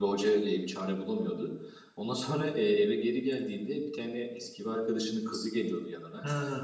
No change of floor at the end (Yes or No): No